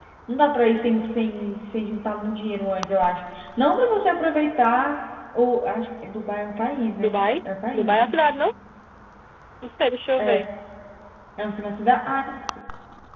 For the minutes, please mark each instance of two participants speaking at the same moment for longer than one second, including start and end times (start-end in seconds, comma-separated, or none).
none